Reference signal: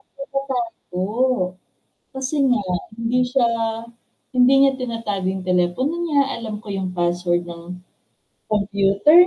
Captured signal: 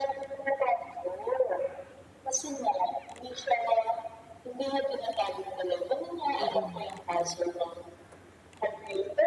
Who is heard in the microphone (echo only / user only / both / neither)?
both